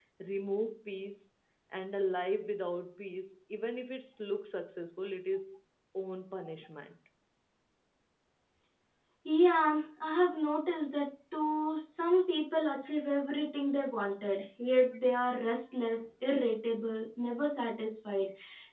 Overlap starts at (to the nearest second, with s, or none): none